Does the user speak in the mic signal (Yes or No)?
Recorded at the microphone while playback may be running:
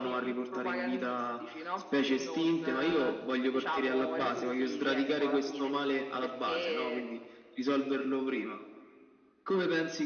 No